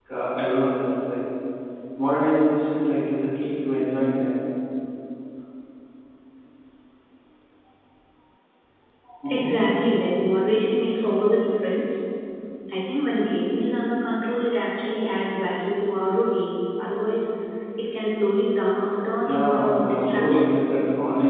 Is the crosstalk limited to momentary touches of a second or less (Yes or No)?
No